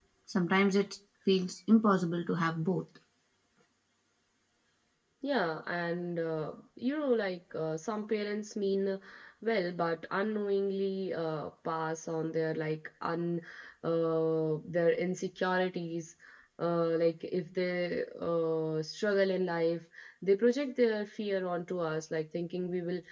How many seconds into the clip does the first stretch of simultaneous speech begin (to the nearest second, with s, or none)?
none